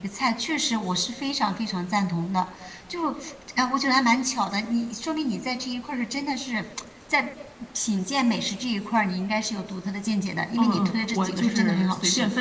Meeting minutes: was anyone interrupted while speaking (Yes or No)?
Yes